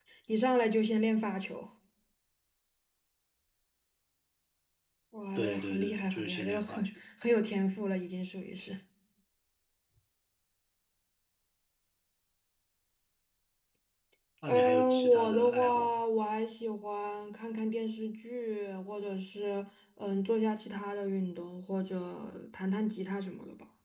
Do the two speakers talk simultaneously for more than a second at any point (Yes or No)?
Yes